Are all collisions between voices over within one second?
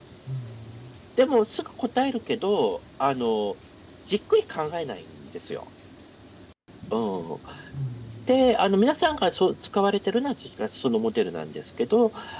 Yes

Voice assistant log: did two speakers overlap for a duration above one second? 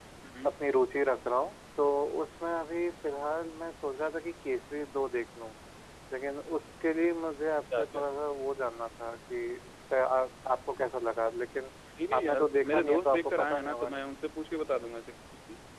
Yes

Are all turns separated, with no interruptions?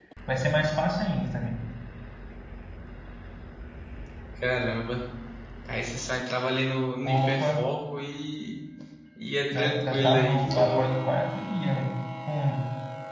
No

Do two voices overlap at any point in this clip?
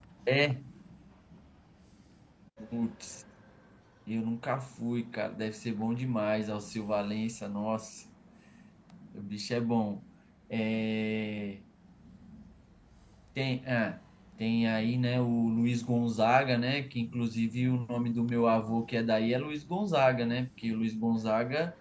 No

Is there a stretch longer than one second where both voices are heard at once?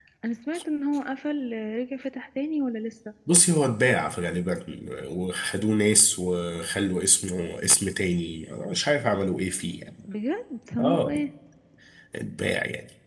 No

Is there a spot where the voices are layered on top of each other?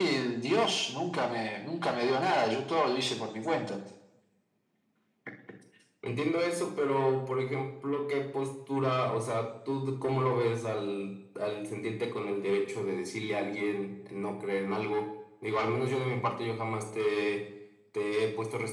No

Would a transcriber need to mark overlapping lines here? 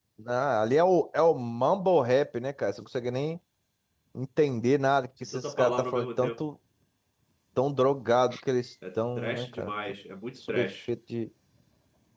Yes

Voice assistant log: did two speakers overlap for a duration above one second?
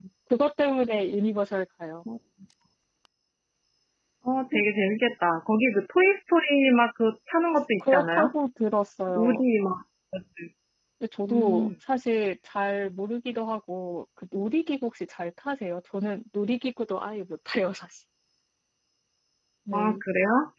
No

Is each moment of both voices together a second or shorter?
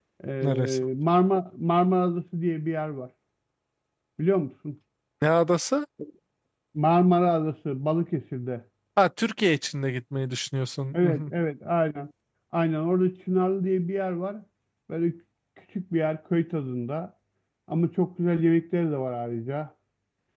Yes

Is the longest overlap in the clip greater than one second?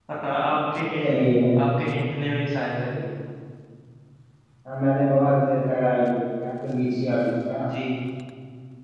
No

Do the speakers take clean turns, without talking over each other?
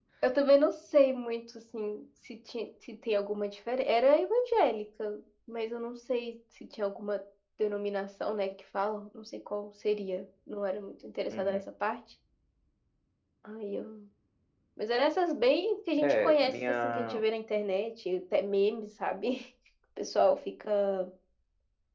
No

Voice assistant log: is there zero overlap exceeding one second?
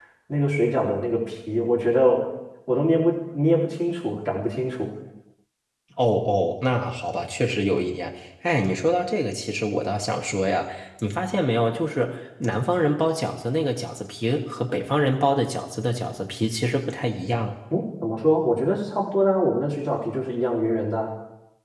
Yes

